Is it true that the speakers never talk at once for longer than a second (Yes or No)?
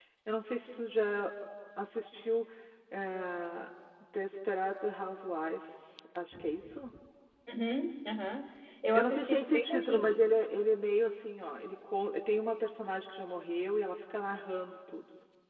No